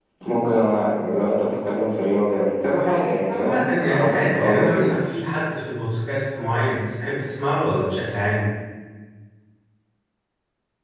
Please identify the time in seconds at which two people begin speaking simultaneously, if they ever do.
3.3 s

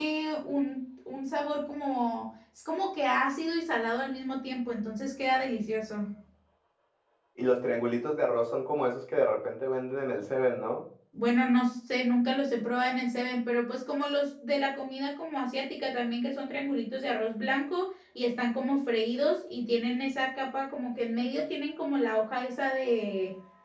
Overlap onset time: none

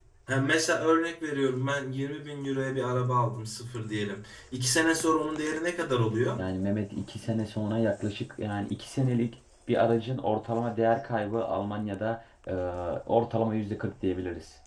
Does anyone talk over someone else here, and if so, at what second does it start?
none

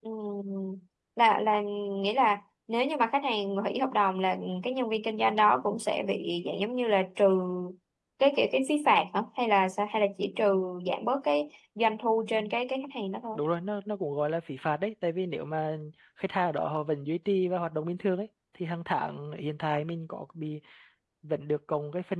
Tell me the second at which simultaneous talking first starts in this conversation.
none

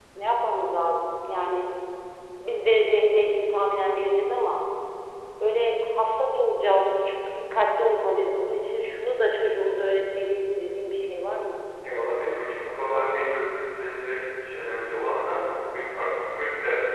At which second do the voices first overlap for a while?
none

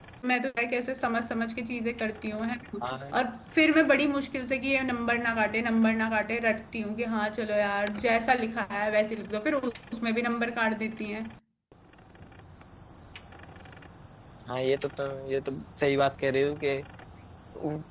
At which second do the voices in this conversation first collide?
none

